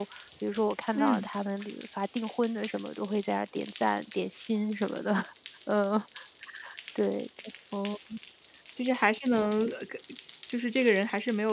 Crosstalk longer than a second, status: none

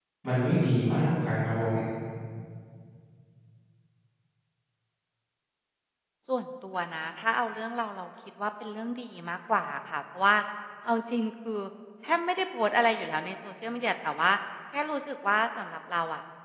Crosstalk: none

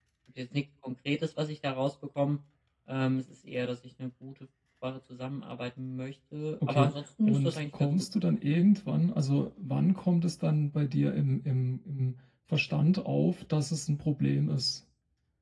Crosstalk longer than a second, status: present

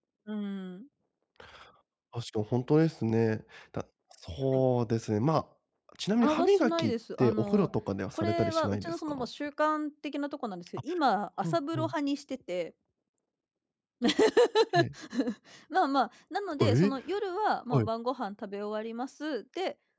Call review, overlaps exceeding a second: present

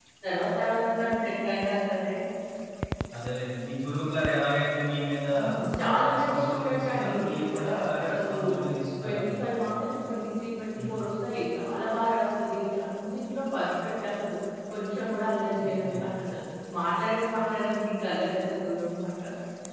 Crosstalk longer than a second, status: present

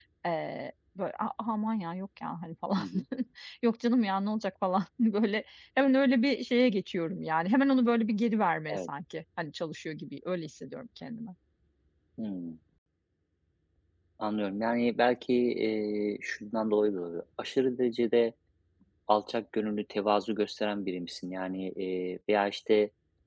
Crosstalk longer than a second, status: none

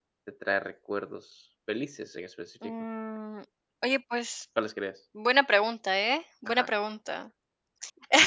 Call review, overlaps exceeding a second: none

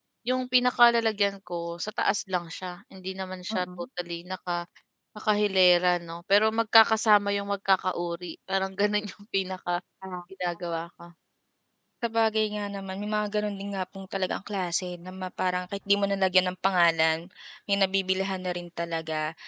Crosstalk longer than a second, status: none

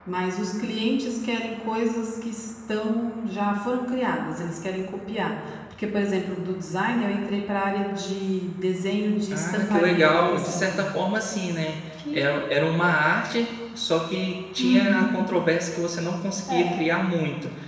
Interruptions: present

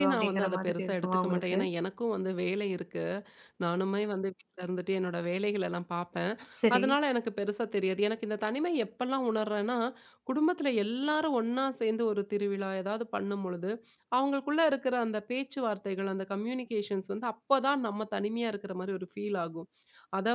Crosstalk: present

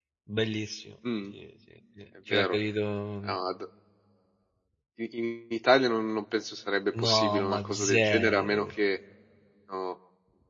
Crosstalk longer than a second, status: present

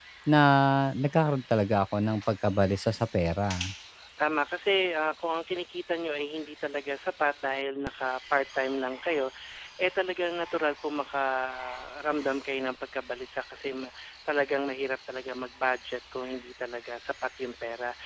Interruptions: none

